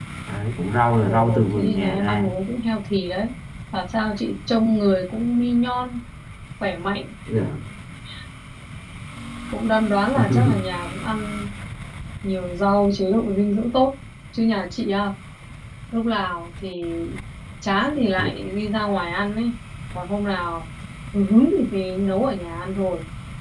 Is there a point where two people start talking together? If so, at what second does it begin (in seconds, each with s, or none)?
1.0 s